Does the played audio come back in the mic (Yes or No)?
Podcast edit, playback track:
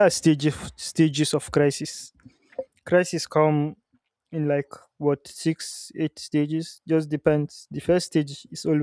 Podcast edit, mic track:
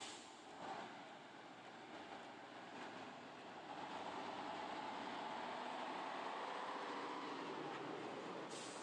No